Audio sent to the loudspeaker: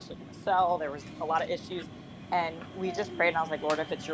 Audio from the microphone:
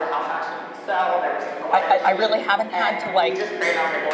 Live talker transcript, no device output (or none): I, I, I really haven't had to like